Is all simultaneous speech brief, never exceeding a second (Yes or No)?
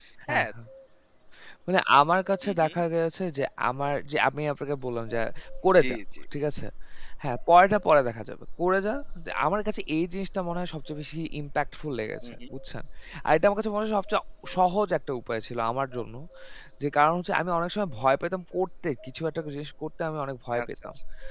Yes